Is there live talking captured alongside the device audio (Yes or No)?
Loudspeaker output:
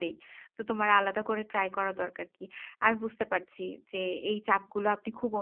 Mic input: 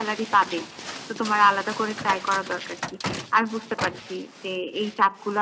No